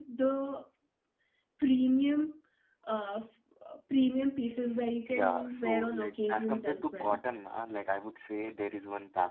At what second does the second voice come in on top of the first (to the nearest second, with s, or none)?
5 s